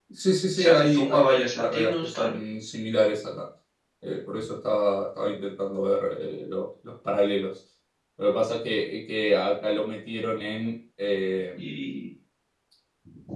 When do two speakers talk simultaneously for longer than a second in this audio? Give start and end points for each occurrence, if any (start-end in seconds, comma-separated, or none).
0.6-2.4